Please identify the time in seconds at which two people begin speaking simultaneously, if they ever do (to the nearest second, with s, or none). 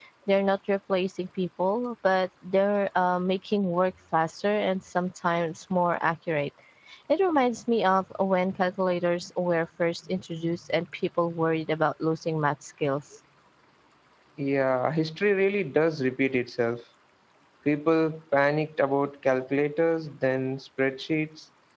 none